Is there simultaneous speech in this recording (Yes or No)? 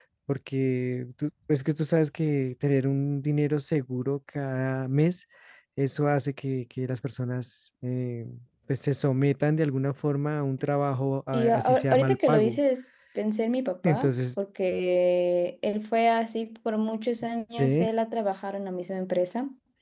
Yes